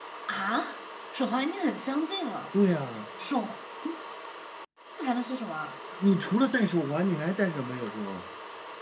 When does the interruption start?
none

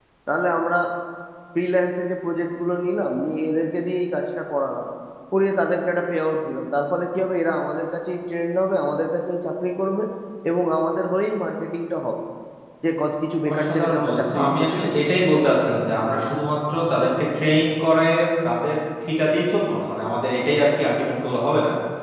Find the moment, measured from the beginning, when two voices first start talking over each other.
13.5 s

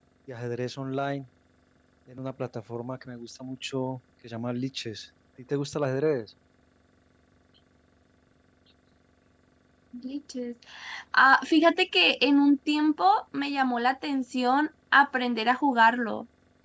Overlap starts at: none

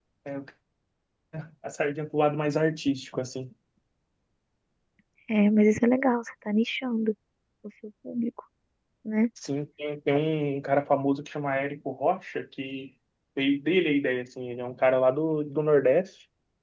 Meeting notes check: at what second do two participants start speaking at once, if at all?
none

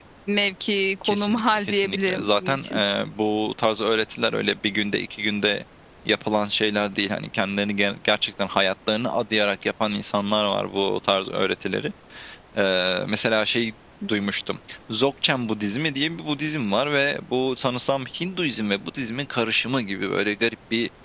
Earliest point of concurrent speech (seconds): 1.0 s

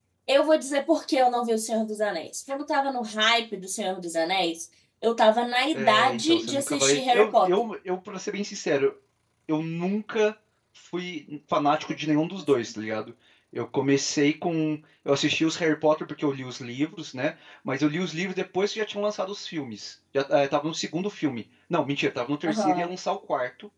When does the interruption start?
5.7 s

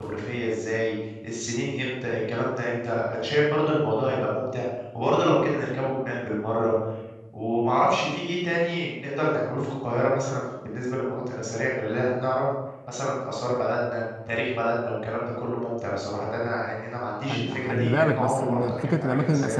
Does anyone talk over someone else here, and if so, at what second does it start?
17.3 s

